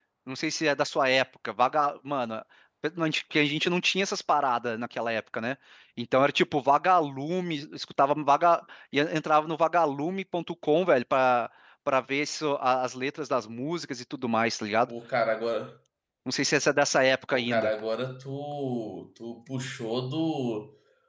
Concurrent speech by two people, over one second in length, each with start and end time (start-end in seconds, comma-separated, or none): none